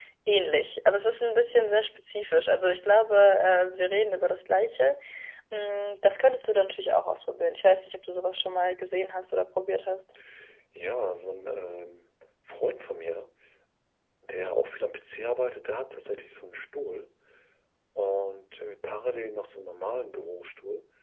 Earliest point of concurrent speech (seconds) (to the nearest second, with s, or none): none